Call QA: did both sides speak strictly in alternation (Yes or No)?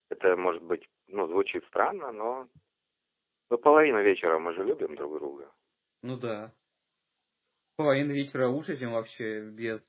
Yes